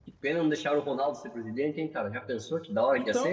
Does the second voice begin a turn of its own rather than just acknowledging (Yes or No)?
Yes